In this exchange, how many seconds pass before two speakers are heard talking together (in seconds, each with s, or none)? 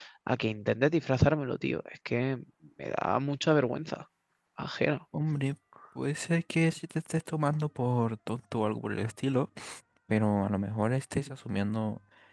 none